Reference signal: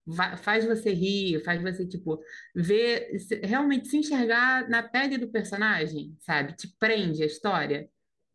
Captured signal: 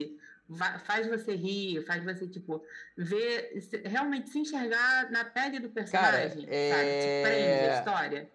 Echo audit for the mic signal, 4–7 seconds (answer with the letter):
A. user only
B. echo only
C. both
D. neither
C